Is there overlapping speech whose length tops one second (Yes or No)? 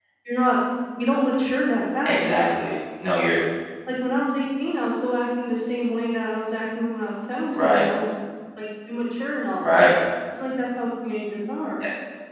No